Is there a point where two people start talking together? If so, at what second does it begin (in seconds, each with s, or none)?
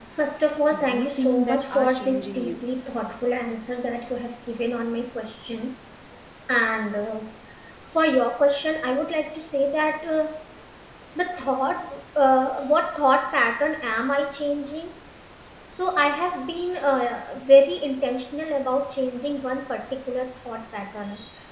0.7 s